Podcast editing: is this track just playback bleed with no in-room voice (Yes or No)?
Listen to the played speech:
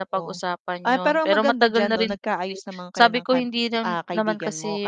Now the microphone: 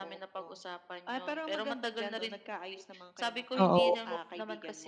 No